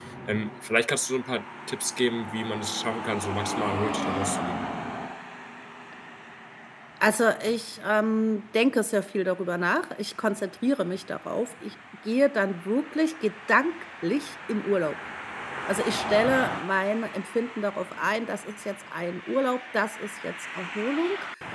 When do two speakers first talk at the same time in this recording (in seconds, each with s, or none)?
none